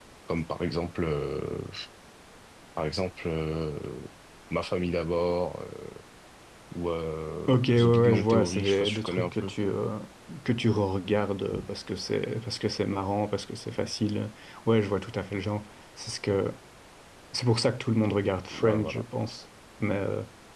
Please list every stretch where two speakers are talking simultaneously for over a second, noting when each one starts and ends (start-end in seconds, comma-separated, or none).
7.5-9.5